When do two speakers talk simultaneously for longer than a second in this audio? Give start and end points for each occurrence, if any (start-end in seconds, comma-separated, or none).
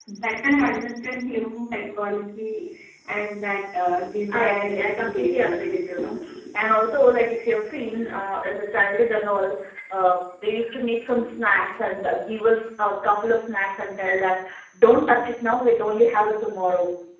4.3-5.9